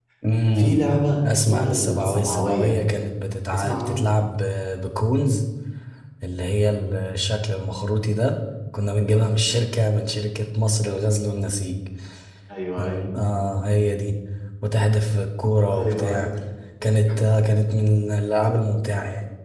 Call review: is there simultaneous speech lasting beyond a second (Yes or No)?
Yes